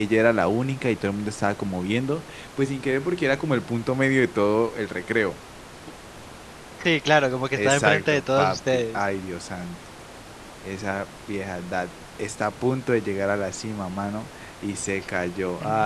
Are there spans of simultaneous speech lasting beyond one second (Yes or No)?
Yes